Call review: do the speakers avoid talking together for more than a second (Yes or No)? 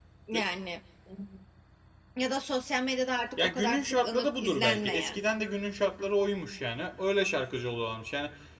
No